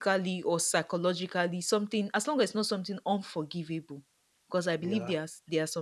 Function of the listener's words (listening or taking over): listening